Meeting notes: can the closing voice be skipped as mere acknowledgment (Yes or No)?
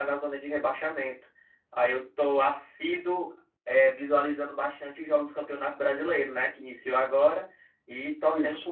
Yes